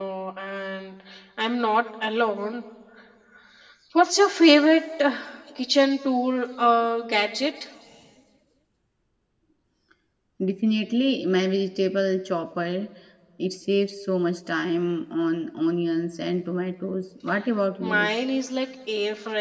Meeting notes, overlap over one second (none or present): none